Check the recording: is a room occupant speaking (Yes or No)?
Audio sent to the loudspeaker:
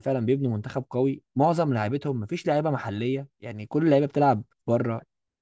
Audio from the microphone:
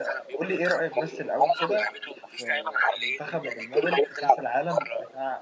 Yes